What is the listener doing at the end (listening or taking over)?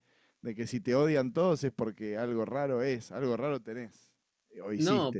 taking over